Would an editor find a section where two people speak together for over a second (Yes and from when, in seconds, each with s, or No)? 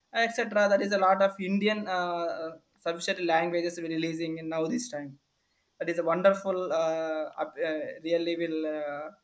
No